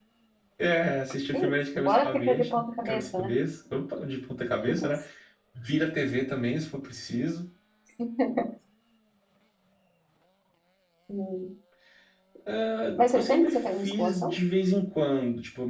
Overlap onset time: 1.3 s

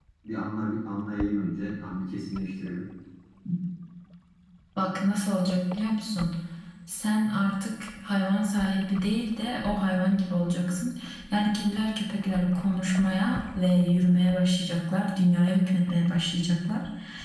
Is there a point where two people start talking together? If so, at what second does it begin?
none

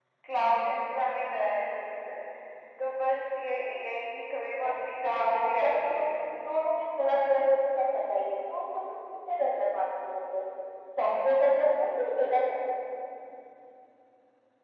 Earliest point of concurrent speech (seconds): 4.6 s

